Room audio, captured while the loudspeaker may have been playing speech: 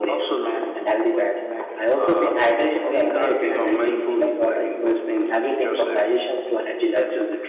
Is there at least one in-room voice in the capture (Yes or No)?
Yes